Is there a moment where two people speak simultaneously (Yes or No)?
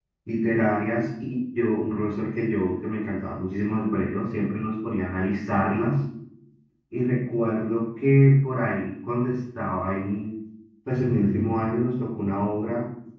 No